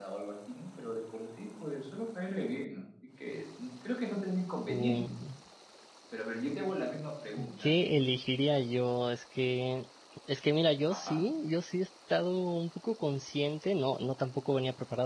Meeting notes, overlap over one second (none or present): none